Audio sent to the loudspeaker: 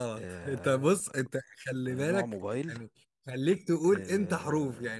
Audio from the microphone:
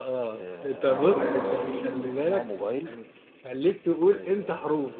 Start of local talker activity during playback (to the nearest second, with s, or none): 1 s